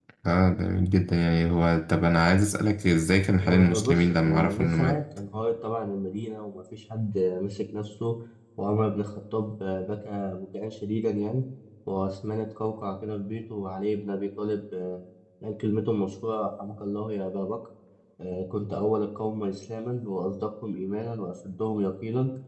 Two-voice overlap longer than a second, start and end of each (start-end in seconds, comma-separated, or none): 3.4-5.0